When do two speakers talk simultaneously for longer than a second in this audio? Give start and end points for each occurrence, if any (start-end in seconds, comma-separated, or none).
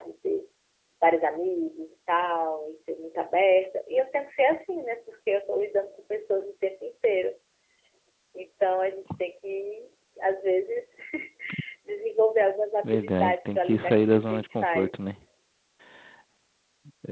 12.8-14.9